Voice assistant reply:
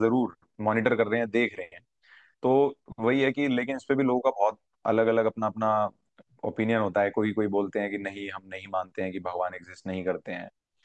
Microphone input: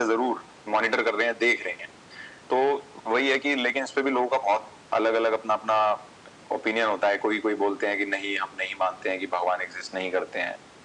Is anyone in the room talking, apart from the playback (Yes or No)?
No